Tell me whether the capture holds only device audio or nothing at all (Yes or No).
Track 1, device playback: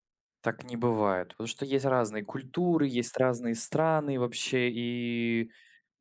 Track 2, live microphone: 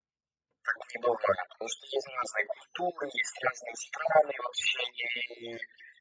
Yes